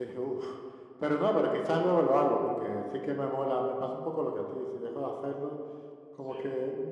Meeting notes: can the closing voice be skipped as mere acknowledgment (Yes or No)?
Yes